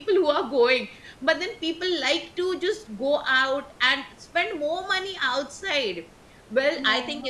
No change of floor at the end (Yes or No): Yes